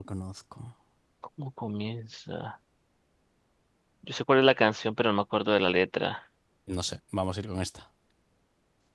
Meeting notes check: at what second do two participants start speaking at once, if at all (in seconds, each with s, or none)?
none